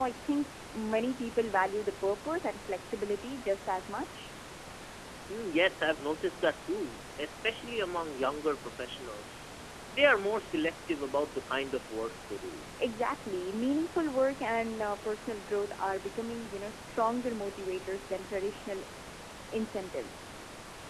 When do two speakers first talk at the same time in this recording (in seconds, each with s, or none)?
none